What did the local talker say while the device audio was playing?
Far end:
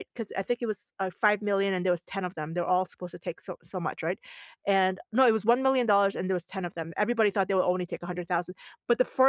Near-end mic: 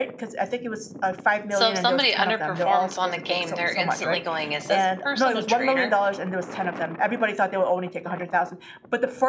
So if somebody underperforms on a game, they're instantly going, Is this person a traitor?

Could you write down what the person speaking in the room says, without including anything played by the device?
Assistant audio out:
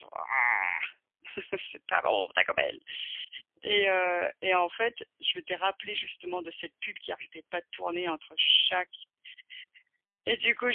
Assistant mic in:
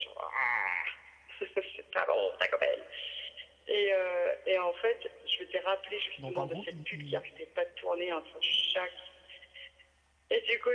Donc en gros, ils ils

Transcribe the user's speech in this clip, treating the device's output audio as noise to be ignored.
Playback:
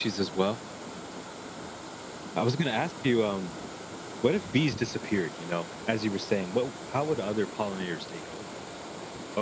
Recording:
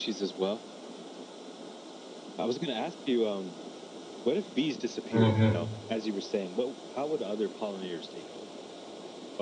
Mhm.

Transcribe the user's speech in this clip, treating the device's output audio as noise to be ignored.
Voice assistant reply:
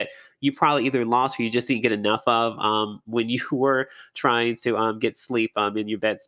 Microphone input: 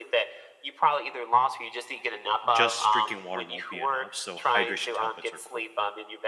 just drinking water won't be enough, so hydration tablets are cool.

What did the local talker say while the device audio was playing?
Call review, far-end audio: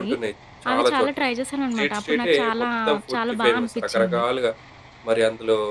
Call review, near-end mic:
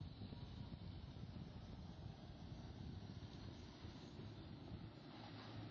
none

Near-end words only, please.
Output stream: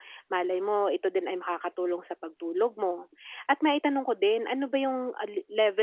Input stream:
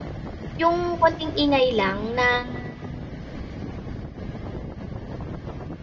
Yung konting ingay lang na

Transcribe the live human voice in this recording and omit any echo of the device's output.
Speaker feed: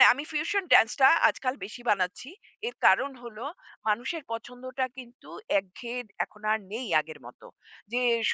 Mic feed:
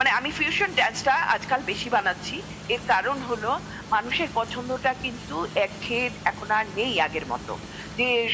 none

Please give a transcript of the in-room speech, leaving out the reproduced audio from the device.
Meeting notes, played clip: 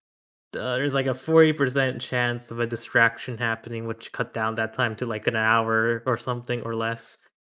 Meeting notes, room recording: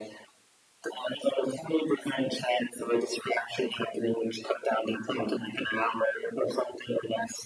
none

